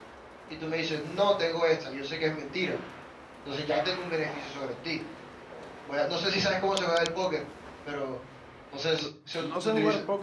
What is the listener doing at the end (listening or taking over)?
taking over